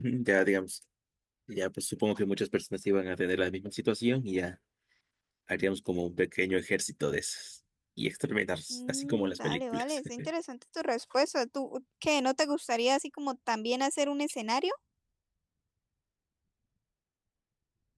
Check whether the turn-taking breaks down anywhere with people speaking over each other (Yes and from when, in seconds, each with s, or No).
Yes, from 8.7 s